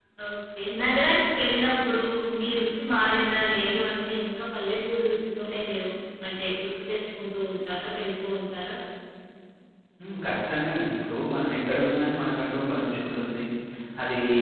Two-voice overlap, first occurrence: none

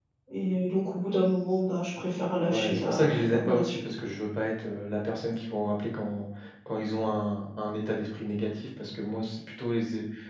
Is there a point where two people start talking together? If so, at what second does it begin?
2 s

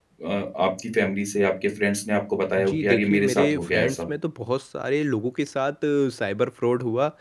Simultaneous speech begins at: 3 s

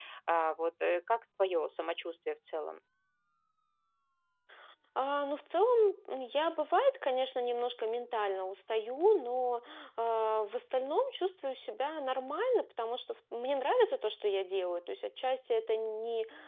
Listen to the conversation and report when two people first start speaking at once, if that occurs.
none

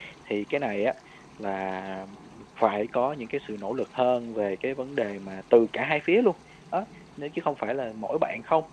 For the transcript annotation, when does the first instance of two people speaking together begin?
none

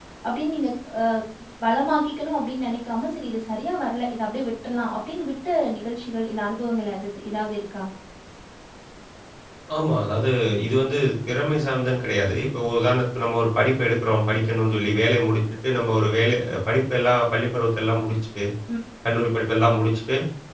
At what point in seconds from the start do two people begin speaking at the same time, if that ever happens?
none

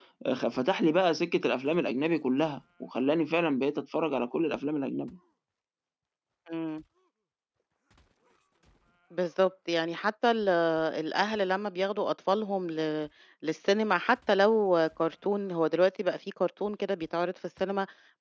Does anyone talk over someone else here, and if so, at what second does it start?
none

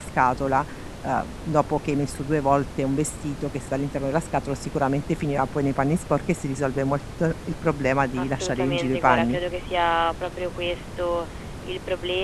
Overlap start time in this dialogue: 8 s

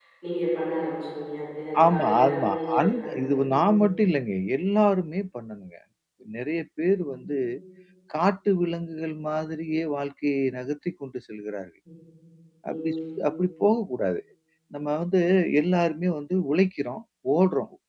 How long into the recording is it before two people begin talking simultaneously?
2 s

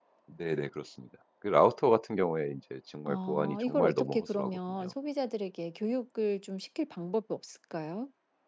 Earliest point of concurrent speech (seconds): 3 s

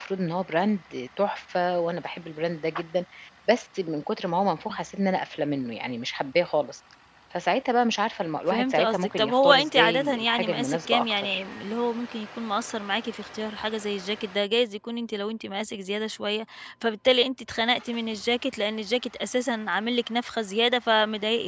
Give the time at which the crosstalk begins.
8 s

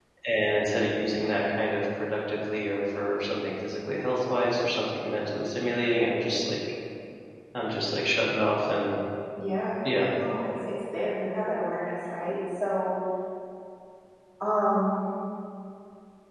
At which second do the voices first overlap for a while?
none

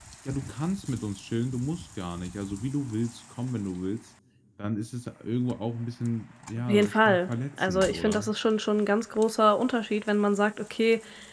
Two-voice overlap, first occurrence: 7 s

